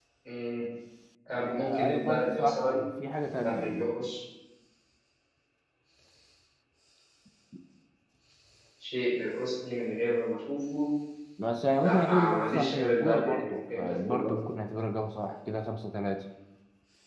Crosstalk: present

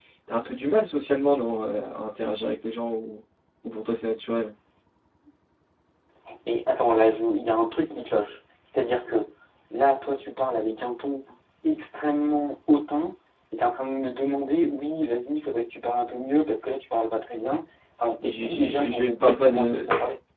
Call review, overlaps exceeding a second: present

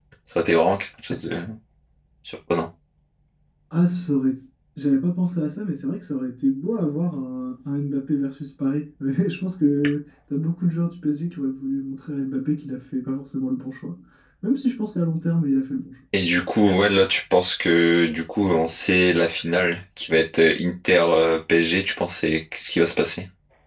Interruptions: none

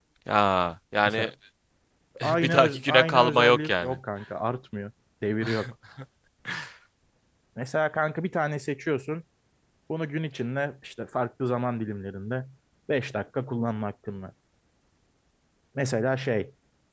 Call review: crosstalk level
present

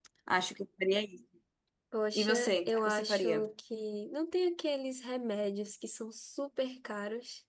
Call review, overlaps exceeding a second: present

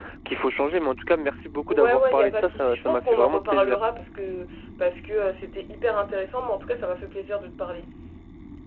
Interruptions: present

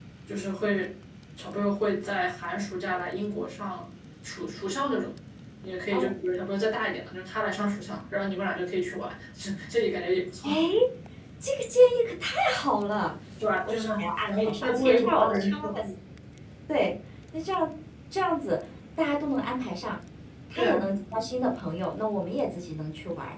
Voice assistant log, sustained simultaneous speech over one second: present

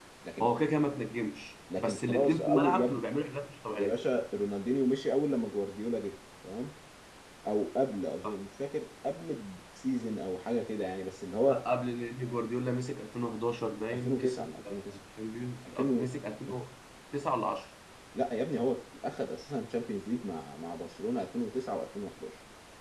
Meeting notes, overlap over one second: present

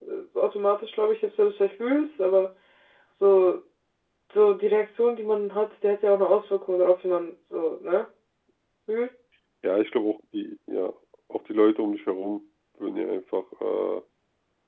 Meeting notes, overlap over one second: none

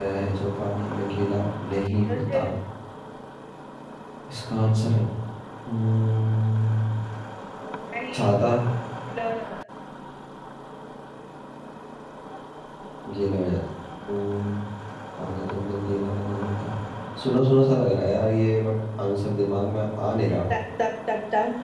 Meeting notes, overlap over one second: none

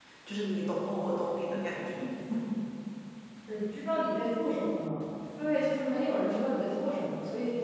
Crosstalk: none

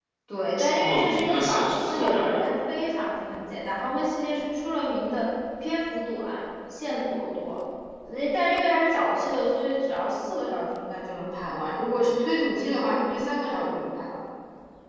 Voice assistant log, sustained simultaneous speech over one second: present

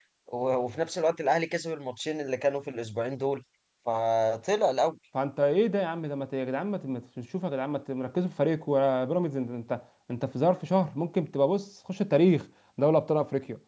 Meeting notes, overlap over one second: none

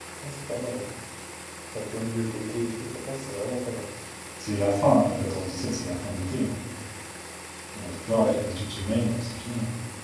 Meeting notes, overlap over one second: none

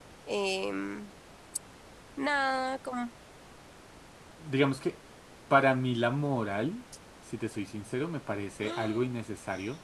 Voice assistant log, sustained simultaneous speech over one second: none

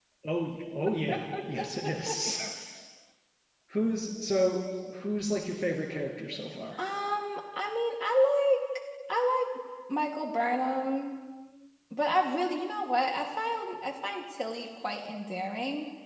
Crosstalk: none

